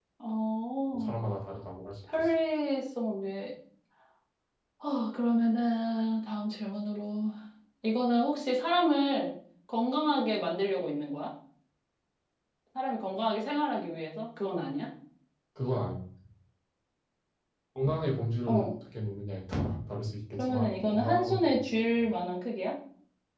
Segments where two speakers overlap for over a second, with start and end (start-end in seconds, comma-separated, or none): 20.3-22.1